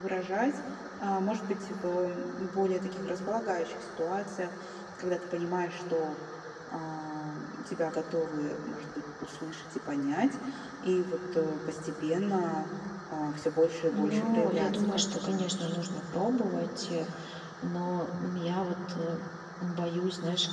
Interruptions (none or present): present